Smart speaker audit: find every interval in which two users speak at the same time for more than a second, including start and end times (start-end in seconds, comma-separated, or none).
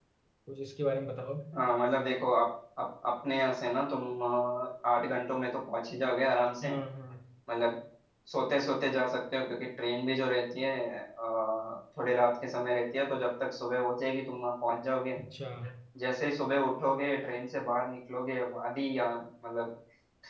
none